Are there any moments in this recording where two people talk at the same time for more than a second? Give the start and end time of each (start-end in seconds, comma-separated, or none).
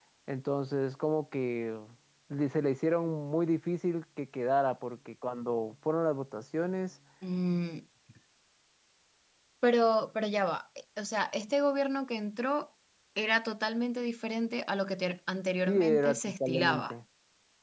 15.7-16.9